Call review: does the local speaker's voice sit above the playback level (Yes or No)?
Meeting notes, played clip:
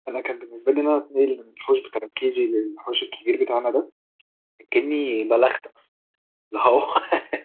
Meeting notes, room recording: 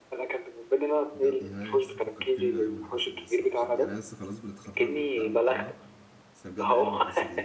No